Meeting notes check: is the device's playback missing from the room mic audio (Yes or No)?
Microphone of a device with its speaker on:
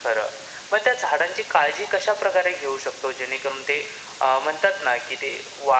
No